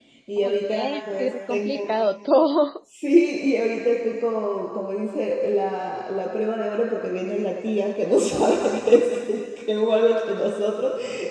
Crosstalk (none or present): present